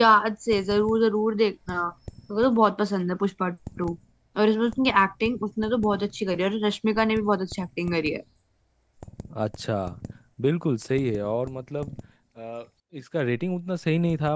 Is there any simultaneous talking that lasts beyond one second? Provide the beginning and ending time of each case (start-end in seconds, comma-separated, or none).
none